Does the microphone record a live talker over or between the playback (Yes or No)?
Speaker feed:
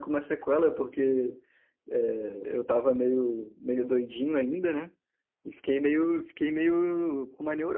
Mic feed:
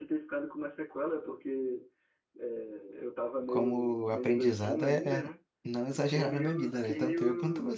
Yes